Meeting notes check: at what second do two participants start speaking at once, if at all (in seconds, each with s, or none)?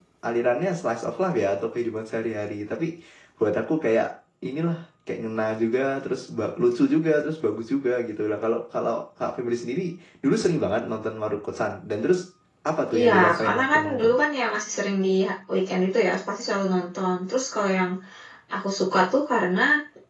12.9 s